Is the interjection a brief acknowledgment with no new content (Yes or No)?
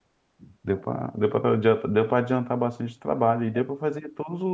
Yes